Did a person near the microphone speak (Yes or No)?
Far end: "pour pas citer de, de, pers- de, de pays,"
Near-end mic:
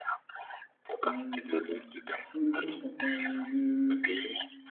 Yes